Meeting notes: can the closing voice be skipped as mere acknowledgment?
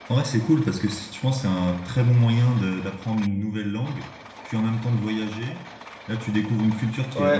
No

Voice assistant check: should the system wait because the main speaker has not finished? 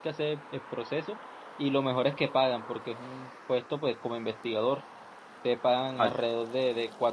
Yes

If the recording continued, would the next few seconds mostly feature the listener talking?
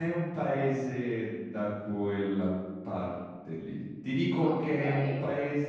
No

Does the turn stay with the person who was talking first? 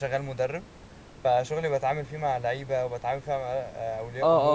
Yes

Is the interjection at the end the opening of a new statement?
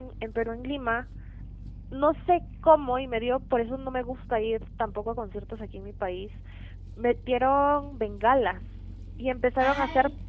No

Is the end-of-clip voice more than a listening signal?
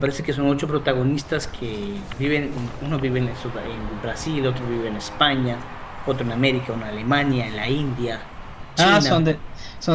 Yes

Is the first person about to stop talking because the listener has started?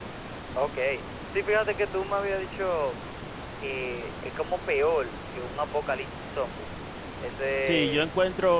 Yes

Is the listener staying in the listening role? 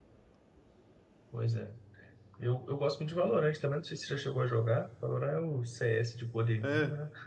No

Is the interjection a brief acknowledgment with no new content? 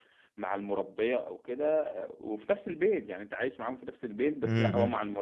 Yes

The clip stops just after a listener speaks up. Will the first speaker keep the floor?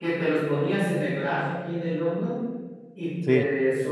Yes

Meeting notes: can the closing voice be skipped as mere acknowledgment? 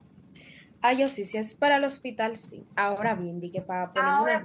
No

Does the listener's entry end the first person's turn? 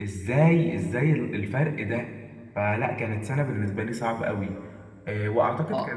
No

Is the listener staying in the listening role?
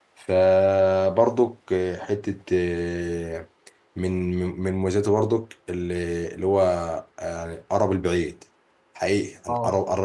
Yes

